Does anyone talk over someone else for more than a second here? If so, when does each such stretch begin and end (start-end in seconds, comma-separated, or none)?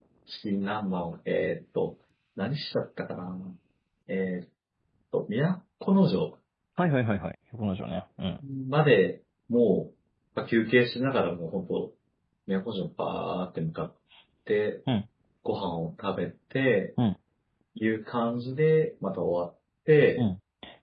none